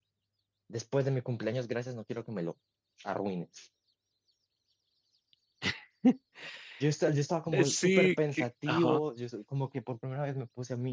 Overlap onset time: 7.5 s

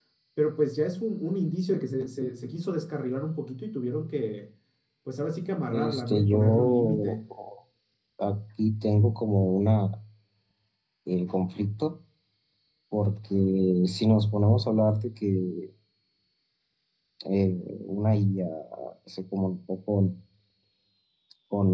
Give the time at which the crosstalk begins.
5.7 s

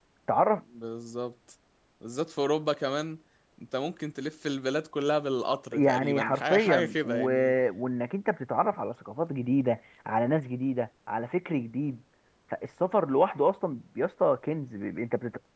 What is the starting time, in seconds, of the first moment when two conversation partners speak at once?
5.7 s

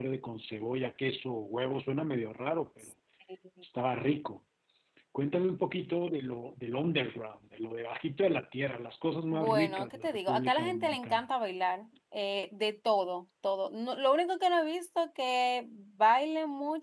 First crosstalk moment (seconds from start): 9.3 s

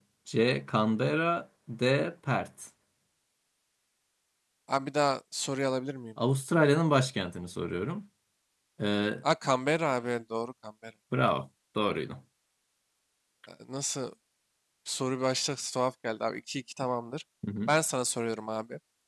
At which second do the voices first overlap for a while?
none

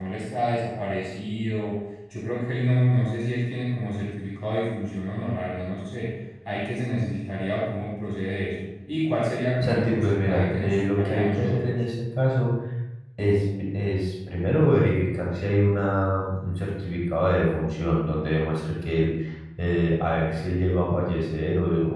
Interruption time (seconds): 9.6 s

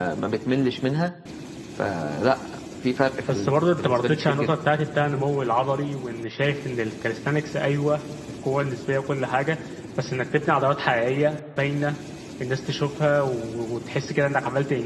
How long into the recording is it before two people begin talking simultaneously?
3.3 s

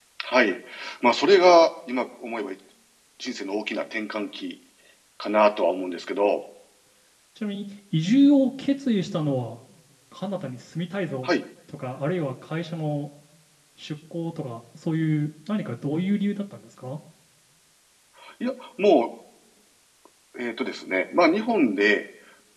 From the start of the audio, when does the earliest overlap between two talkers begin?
none

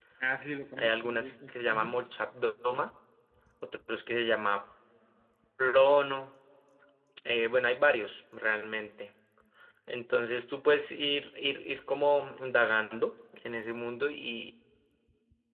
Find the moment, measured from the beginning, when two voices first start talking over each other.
0.8 s

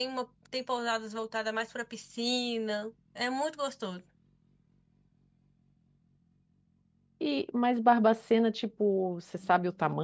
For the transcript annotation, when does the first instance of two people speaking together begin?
none

